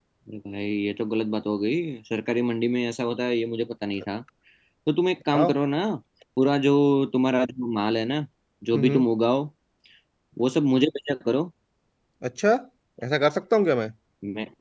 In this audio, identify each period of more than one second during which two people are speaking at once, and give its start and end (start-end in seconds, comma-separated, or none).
none